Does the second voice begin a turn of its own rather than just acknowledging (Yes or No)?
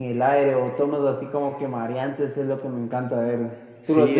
Yes